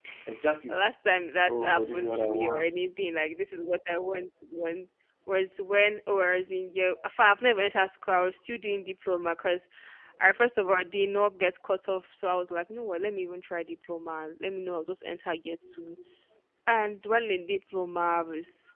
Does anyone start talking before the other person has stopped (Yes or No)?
Yes